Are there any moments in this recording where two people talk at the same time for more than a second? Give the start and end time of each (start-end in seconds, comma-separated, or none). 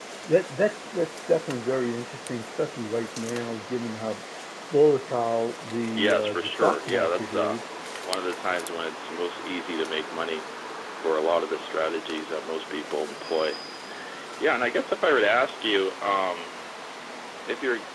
6.0-7.6